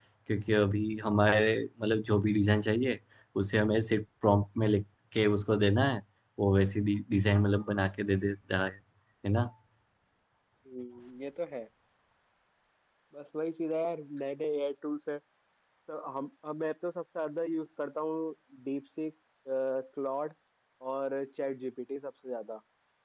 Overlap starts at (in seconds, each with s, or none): none